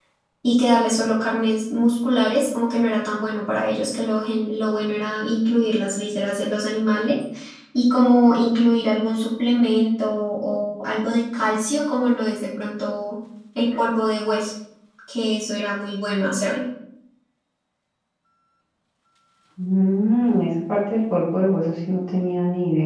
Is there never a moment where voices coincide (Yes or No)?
Yes